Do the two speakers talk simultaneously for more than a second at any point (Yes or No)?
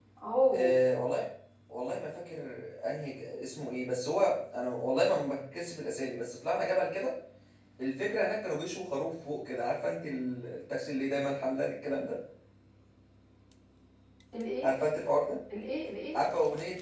No